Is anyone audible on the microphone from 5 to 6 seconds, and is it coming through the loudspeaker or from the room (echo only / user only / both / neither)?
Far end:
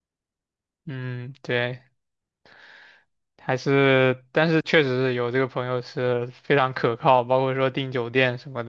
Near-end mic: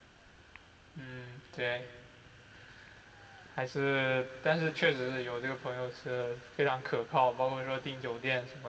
echo only